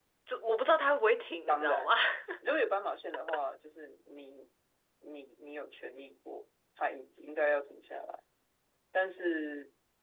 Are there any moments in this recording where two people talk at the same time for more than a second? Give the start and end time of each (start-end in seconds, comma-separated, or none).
none